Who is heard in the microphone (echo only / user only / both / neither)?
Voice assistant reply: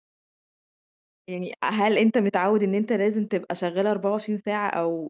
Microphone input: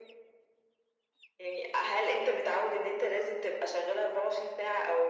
echo only